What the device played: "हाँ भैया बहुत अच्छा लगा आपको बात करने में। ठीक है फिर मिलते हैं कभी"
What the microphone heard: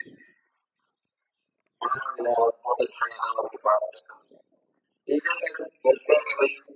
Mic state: echo only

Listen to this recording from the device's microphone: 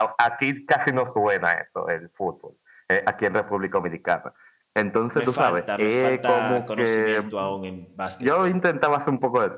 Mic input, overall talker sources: both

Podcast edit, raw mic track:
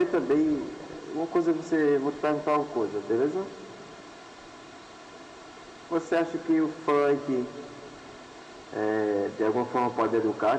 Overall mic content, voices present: echo only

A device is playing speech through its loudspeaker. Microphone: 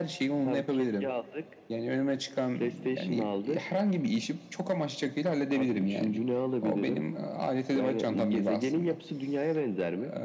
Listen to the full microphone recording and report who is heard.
echo only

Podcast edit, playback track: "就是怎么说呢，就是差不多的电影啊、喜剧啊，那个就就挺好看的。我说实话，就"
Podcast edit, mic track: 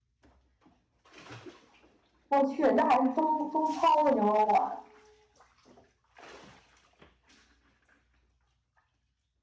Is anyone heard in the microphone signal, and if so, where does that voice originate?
user only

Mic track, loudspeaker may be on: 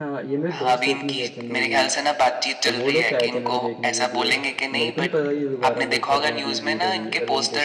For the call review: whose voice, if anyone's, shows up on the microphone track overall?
both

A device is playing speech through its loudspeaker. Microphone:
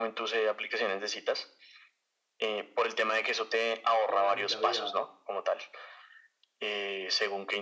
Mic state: both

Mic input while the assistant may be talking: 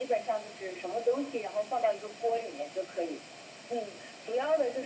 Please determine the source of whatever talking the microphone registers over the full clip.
echo only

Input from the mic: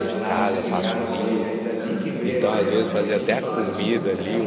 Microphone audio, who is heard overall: both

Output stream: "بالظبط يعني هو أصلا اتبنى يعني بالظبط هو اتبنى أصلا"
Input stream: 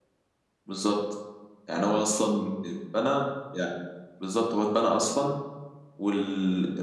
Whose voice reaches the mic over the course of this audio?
echo only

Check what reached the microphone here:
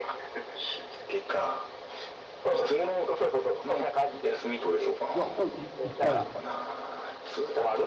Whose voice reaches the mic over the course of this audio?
both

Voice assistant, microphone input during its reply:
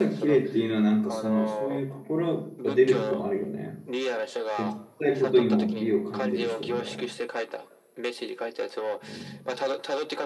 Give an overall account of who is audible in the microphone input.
both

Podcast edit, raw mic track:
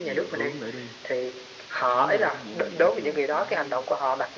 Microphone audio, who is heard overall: echo only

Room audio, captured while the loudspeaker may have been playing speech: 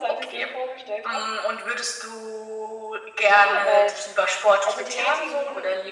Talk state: echo only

